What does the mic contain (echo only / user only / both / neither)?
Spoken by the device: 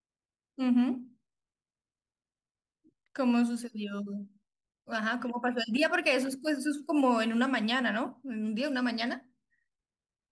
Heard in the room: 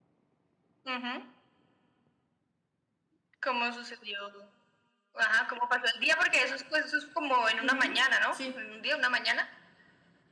both